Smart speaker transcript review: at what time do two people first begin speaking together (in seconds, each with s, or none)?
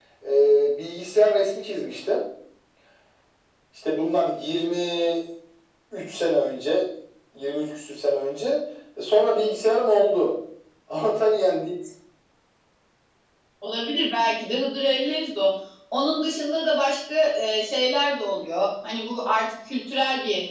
none